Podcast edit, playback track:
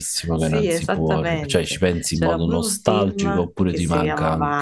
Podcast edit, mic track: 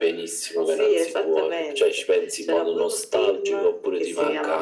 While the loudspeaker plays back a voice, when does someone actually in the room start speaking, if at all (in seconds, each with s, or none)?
none